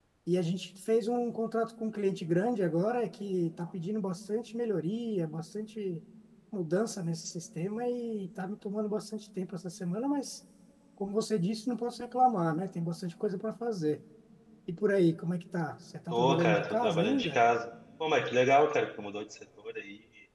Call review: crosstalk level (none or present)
present